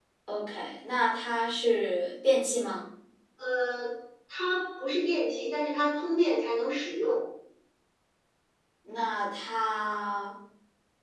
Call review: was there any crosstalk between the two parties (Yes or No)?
No